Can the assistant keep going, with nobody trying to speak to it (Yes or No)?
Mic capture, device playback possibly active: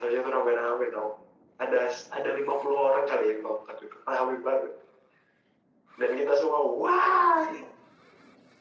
Yes